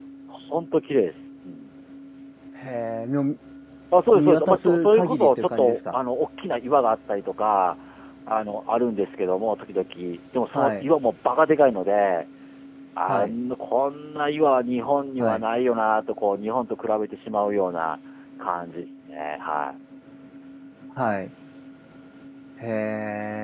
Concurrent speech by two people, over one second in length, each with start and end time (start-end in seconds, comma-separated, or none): 4.1-6.0